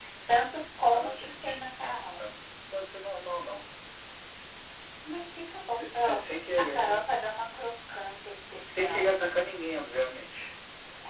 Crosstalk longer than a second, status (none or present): present